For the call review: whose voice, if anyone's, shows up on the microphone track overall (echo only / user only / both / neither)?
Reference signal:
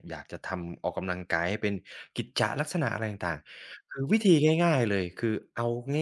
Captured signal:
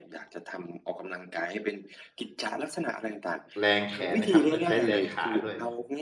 both